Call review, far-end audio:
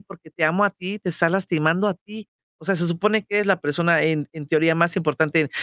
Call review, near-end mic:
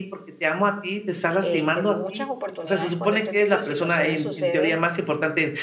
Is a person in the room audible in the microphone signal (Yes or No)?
Yes